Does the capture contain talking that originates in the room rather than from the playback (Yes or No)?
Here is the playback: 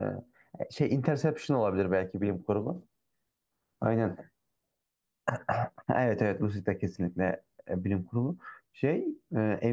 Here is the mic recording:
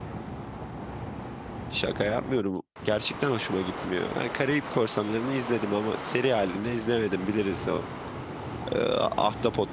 Yes